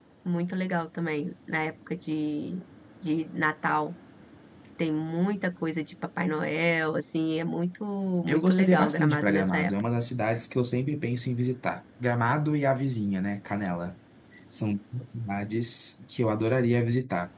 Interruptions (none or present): present